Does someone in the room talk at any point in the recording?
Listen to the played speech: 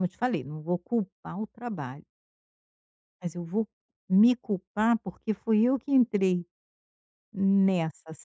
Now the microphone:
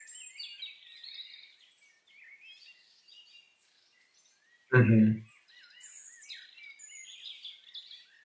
Yes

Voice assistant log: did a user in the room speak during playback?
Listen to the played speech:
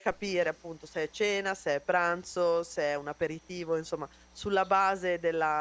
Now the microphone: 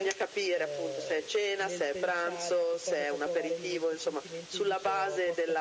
Yes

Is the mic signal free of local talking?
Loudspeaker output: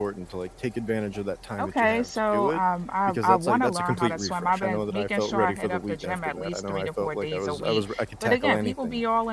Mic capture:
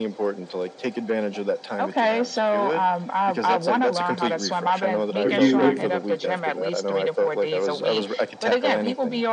No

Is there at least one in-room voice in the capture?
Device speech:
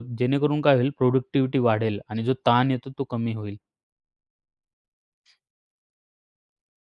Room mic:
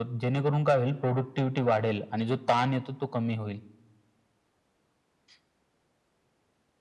No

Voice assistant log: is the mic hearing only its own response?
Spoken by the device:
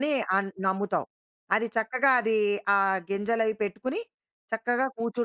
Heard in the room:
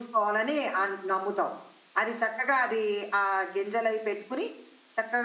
Yes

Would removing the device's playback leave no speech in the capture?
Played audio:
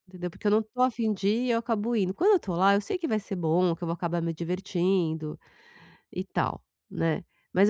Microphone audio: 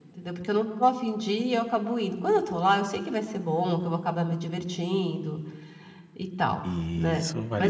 No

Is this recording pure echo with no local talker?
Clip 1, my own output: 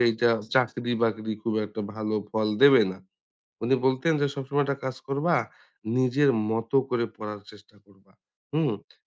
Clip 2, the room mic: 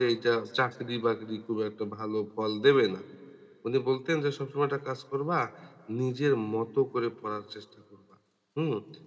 Yes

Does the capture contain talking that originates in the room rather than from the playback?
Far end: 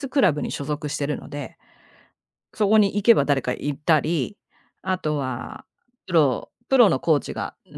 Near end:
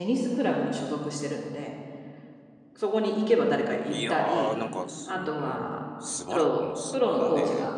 Yes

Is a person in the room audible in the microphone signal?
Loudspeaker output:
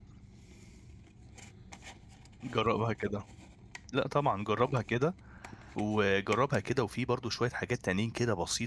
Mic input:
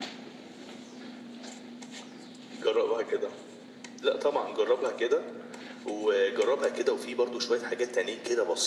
No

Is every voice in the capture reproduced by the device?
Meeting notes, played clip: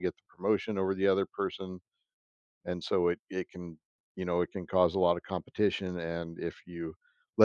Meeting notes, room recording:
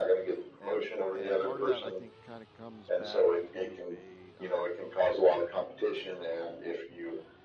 No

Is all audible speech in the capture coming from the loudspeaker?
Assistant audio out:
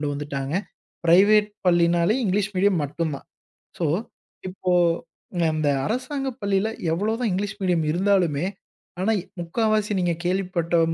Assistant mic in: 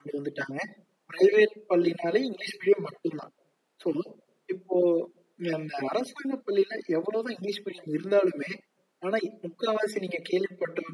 Yes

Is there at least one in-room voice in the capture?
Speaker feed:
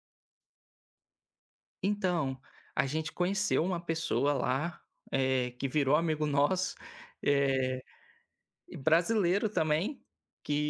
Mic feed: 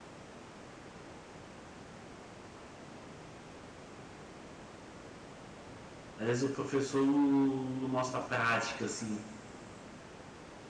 Yes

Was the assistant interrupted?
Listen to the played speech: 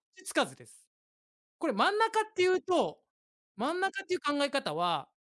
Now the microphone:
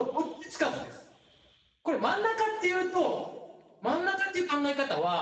No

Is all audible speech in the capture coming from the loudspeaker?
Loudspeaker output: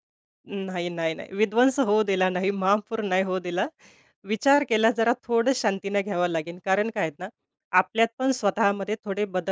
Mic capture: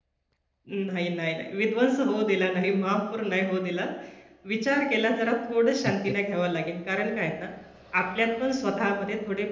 No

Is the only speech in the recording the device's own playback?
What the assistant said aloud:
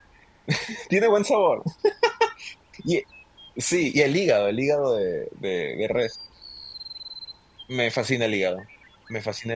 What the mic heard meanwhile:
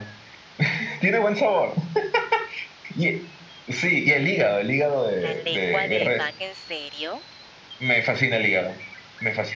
No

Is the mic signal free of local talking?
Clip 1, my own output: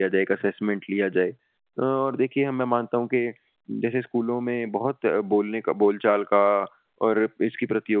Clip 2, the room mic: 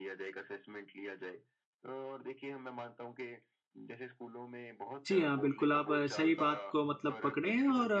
No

